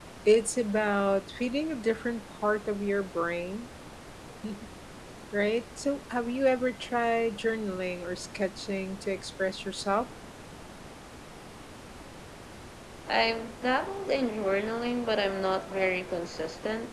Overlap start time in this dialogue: none

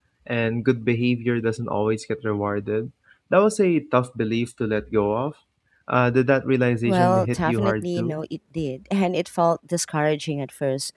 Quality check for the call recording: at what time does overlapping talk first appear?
7 s

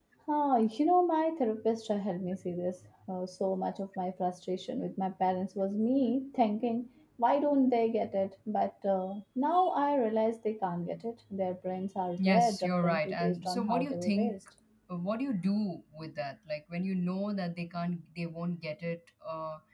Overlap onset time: 12 s

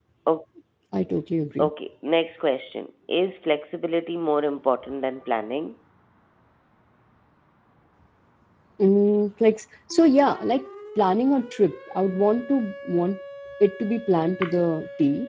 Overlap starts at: none

